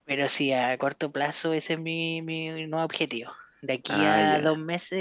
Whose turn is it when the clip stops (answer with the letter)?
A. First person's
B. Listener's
A